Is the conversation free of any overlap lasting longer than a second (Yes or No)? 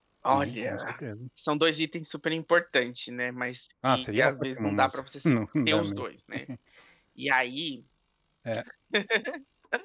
No